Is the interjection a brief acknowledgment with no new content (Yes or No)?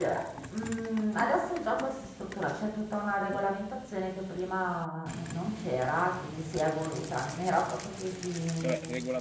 No